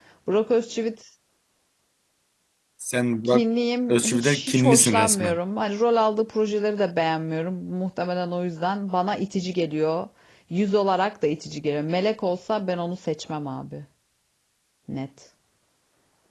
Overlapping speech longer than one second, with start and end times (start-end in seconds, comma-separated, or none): 3.9-5.4